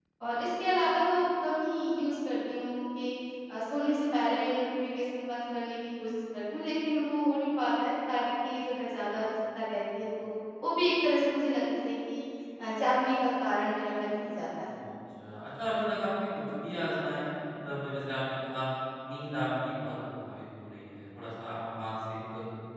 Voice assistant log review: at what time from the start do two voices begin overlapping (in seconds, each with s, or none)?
none